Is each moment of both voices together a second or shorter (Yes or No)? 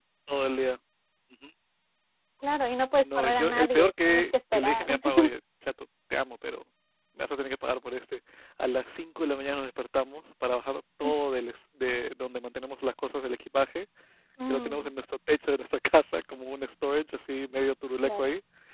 No